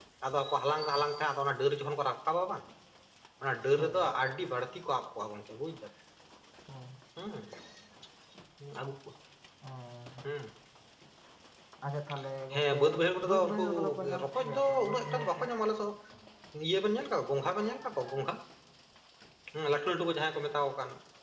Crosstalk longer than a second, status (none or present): present